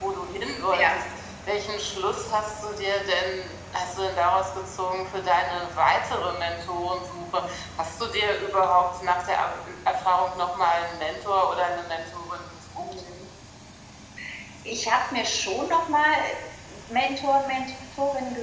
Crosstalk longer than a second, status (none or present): none